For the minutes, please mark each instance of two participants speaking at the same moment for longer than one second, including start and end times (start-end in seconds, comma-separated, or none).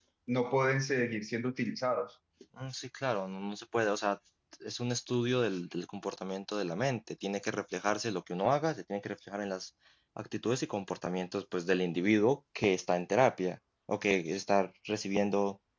none